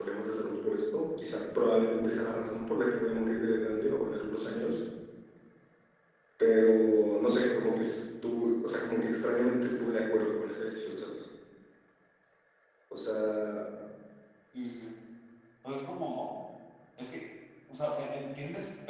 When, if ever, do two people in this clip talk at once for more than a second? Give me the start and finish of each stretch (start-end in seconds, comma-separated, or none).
none